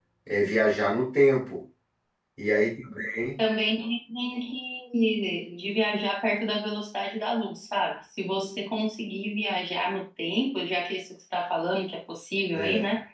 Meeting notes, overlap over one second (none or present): none